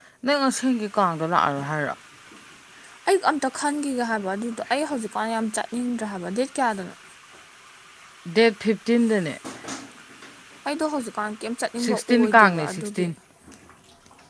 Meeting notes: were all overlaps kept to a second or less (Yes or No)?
No